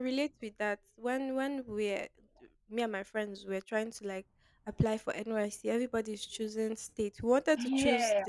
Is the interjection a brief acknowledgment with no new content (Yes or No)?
Yes